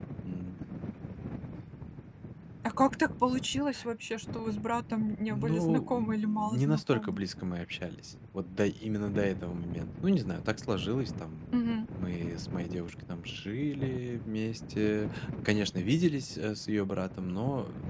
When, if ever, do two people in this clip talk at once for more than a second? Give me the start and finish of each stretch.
5.3-7.2

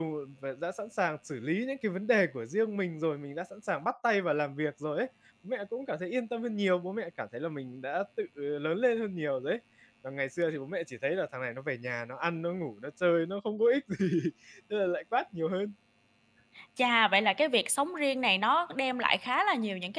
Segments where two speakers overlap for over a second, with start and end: none

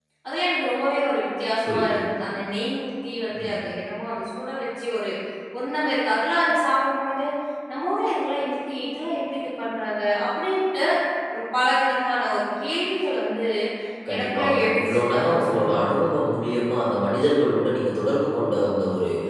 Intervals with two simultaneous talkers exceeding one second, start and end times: 14.1-15.8

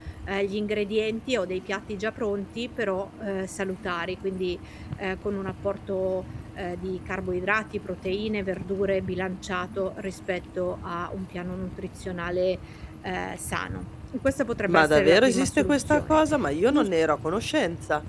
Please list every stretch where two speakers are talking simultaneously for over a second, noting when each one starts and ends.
14.7-16.2

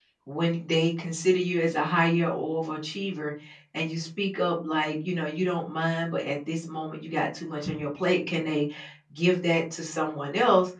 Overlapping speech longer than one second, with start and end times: none

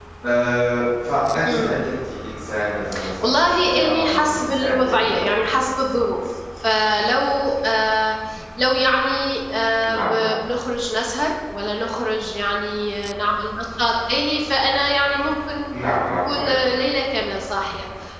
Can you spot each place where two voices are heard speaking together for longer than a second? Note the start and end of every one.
3.2-5.2

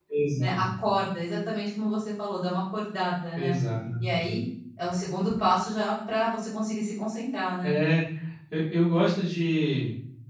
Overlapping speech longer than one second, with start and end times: none

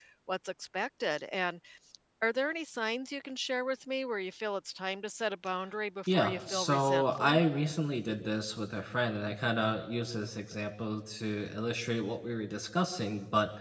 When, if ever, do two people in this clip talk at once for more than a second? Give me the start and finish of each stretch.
6.1-7.4

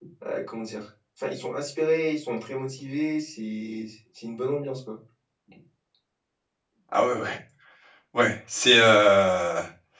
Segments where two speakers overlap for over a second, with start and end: none

